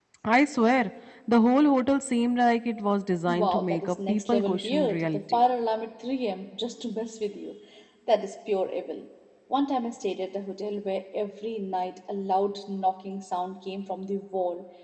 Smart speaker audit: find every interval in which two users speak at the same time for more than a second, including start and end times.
3.3-5.4

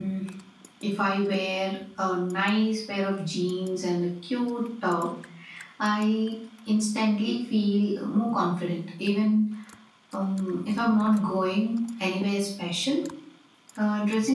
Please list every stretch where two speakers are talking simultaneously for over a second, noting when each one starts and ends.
none

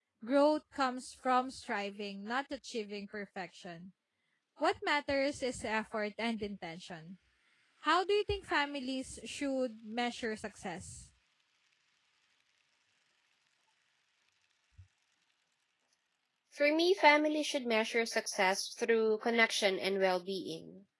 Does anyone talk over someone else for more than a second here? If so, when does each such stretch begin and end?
none

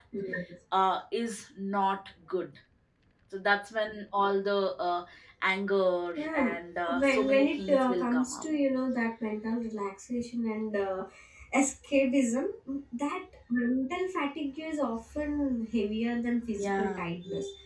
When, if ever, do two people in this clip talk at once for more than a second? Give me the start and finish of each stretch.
7.0-8.4

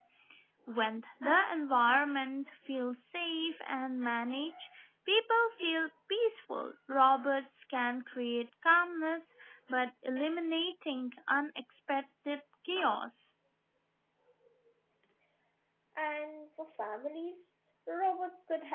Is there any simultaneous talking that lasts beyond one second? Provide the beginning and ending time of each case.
none

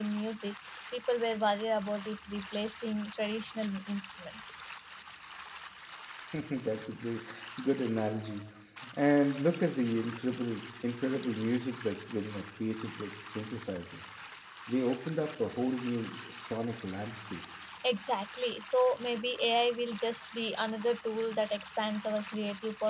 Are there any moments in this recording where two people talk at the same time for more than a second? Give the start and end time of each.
none

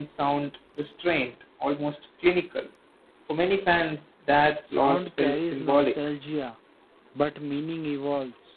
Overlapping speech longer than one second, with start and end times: 4.7-6.0

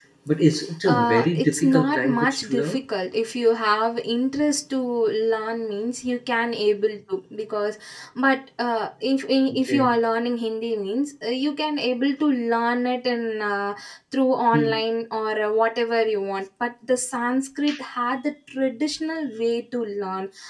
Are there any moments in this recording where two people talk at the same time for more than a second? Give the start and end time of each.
0.8-2.8

